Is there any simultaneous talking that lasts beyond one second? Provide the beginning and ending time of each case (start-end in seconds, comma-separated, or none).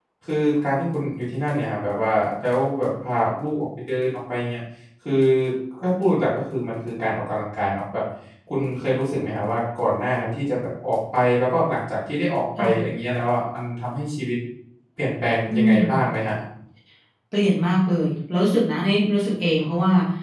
none